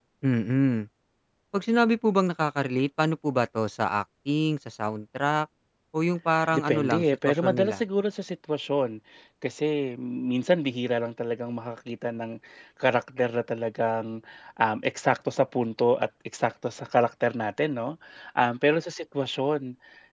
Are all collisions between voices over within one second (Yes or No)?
No